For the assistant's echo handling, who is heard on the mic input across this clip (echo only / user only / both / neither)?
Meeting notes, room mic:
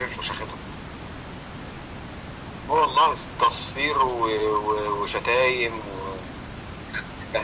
echo only